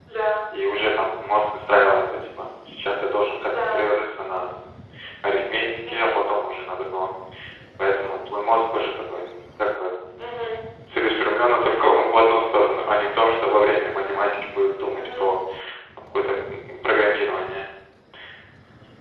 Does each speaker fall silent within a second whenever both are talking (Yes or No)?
Yes